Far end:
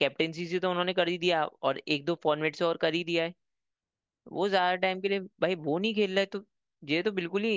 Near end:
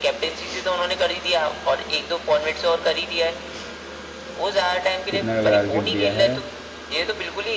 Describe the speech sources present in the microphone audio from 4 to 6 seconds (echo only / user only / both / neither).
both